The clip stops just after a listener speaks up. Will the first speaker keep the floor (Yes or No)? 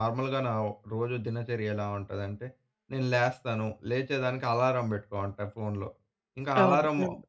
Yes